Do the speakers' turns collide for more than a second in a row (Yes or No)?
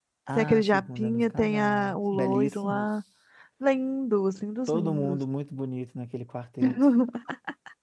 Yes